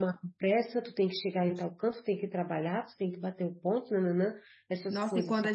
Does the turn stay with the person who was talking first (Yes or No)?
No